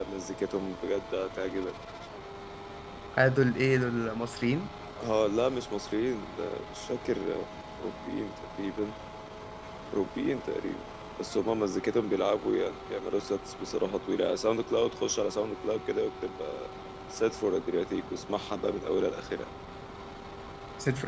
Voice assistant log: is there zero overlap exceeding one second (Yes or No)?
Yes